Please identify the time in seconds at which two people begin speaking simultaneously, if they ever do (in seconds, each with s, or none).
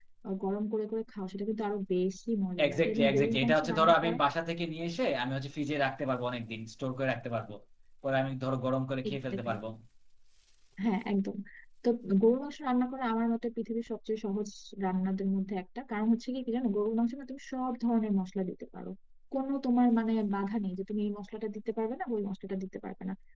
2.6 s